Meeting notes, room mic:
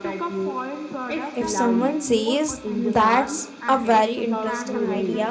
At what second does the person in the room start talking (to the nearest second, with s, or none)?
1 s